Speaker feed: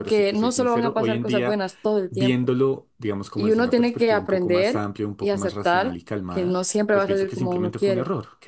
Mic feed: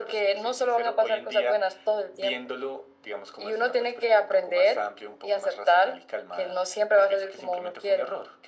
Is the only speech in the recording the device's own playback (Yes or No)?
Yes